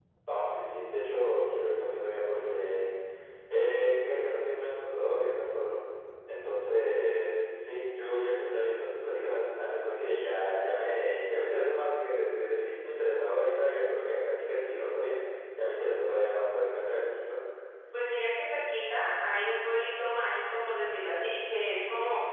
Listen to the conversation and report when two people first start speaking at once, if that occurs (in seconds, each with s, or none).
none